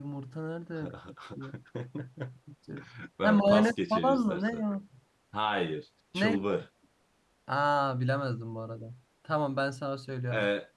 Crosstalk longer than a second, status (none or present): present